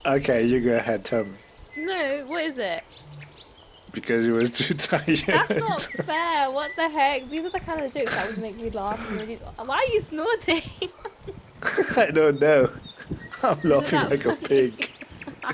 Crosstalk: present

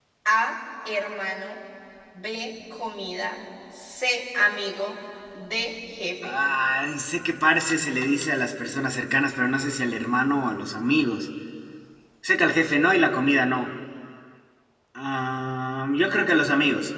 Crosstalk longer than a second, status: none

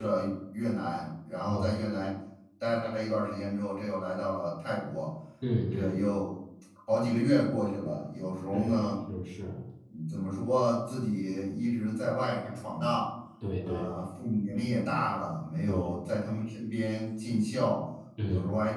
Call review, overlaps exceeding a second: none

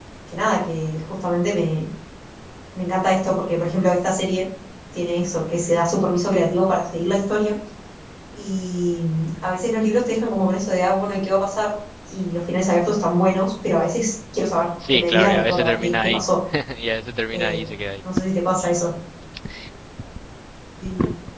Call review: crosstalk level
present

